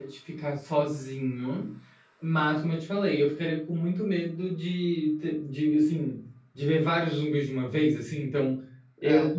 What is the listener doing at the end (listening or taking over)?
listening